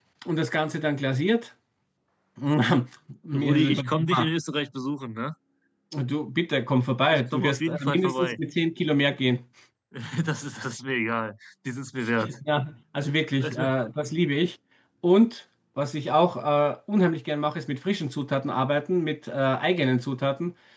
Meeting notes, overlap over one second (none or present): present